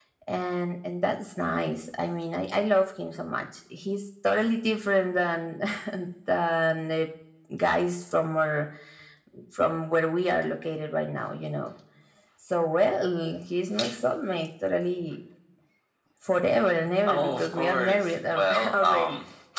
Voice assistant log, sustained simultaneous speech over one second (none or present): present